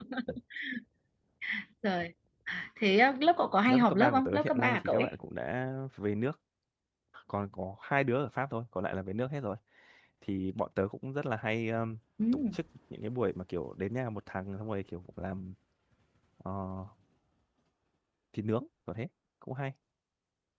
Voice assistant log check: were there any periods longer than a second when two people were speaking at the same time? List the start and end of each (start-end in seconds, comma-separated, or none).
3.7-5.1